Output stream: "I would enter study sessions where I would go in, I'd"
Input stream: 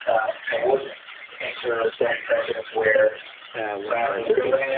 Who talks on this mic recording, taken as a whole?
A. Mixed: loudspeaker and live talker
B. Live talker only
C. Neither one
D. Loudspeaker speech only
A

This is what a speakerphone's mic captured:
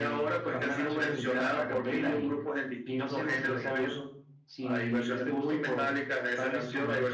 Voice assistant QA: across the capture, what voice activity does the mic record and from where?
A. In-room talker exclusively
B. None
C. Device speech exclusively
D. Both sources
C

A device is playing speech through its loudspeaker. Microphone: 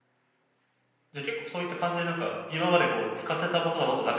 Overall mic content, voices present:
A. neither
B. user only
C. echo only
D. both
B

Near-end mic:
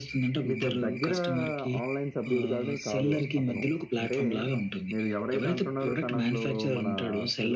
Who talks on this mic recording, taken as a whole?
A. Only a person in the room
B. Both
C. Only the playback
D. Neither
C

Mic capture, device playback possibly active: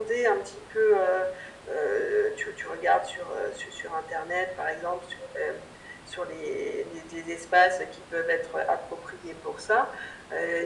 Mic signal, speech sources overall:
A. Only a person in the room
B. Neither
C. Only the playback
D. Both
C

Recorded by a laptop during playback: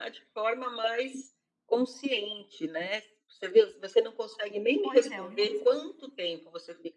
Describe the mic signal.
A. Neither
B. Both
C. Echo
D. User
B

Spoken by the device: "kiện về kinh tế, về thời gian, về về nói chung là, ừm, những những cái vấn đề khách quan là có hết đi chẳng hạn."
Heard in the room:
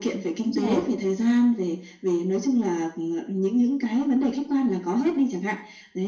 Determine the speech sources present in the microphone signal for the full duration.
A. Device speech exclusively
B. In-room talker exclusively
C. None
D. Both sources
D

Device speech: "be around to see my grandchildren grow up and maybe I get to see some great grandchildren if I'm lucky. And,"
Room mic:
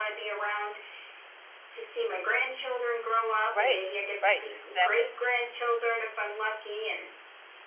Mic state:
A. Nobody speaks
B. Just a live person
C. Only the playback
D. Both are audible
D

